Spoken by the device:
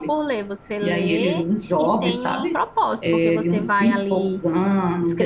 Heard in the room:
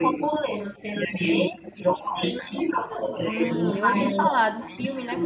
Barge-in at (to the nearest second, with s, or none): 3 s